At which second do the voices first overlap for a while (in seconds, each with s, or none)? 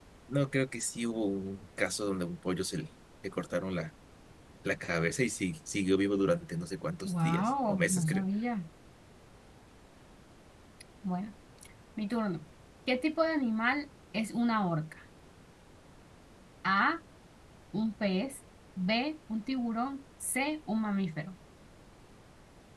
7.0 s